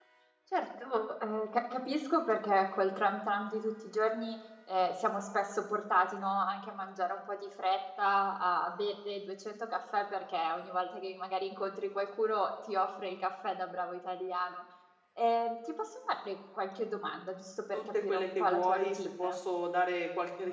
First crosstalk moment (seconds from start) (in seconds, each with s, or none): 17.7 s